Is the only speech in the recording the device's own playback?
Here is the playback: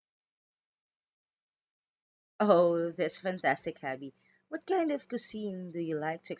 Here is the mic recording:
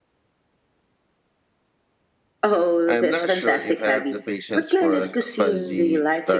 No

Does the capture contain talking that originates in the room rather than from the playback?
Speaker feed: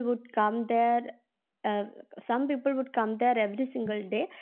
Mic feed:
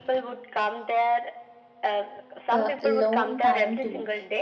Yes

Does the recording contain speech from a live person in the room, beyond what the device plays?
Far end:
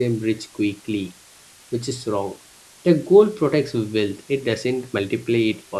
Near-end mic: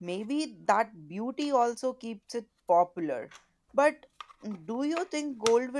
Yes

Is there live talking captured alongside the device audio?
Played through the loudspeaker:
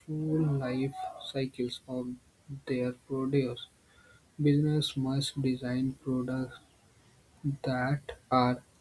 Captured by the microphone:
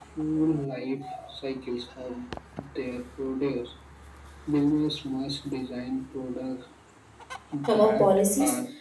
Yes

